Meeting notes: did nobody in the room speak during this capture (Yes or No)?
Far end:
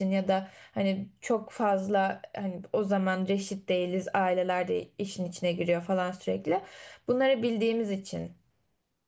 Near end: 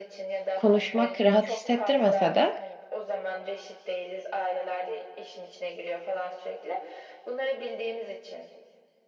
No